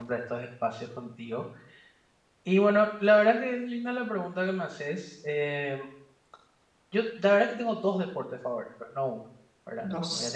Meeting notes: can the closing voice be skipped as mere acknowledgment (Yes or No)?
Yes